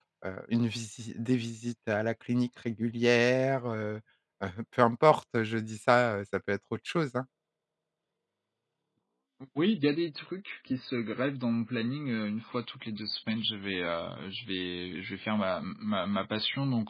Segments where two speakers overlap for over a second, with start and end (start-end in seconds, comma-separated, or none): none